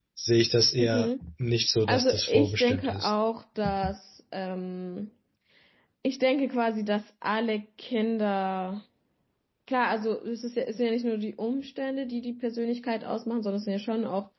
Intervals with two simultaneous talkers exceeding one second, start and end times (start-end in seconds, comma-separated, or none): 1.9-3.1